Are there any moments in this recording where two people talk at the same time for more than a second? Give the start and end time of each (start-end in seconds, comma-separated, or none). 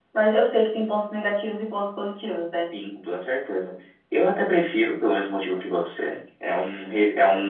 none